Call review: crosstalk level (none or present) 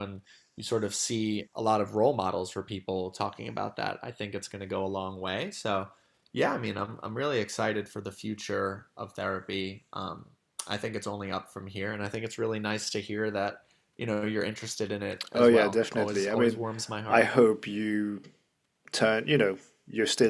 present